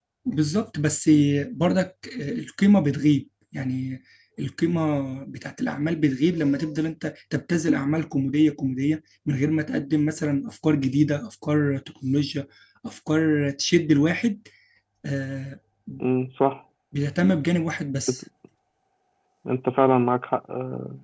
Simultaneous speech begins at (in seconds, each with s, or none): none